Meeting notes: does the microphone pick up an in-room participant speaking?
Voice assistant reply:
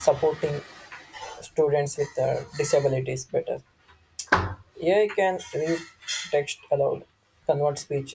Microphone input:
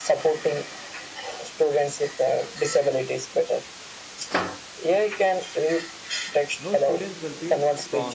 Yes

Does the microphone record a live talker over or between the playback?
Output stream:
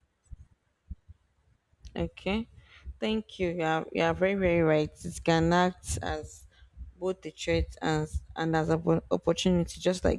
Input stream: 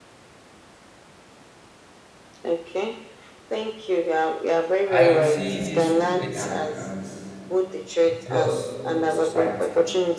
Yes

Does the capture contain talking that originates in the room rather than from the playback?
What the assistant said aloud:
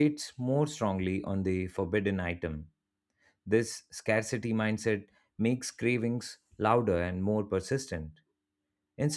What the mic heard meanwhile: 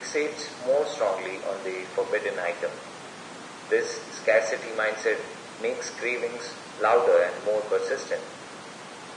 No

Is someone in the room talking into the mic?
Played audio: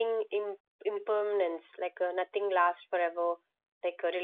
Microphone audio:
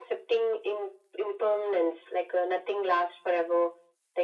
No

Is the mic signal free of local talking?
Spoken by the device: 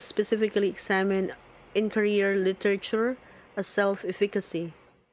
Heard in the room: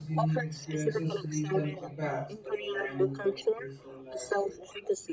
No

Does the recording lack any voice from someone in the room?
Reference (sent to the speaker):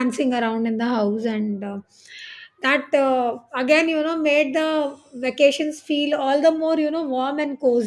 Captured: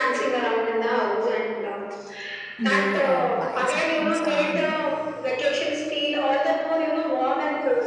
No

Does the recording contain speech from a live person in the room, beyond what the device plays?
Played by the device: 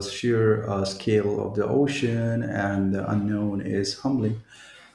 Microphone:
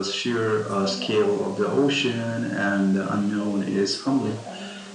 Yes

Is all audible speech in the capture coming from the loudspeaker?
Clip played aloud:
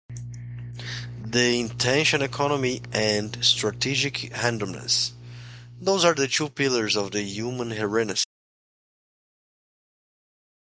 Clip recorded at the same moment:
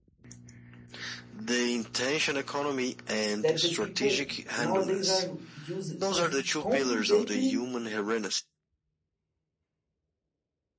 No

